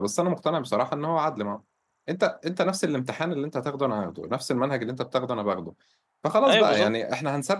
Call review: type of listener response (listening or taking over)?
listening